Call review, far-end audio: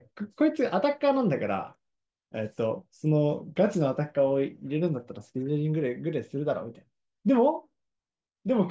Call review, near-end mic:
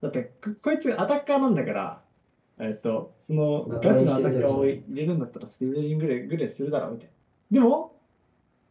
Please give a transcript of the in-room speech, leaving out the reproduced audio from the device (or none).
まともに引けるキャラじゃない。